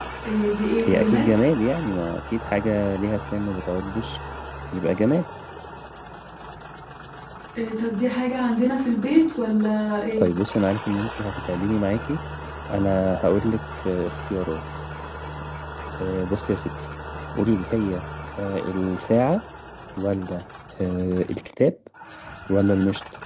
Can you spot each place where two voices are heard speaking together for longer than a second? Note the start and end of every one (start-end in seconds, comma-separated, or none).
none